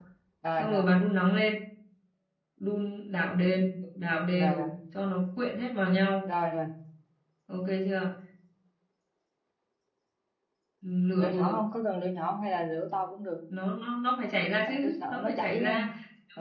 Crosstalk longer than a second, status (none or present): present